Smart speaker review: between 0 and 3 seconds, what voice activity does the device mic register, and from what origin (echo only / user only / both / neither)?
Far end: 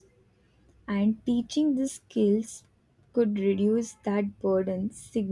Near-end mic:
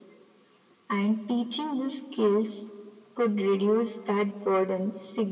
echo only